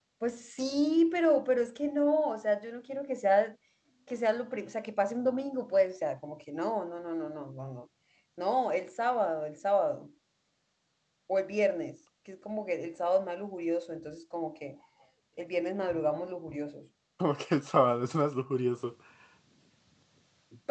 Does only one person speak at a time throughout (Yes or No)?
Yes